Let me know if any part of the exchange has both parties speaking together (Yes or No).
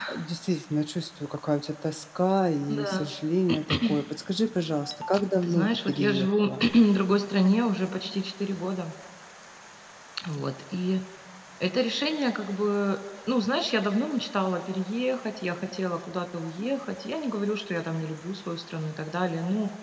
Yes